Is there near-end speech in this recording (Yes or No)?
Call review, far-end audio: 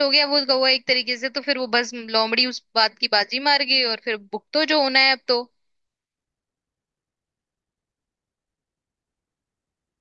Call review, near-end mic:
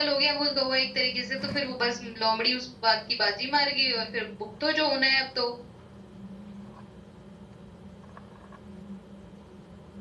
No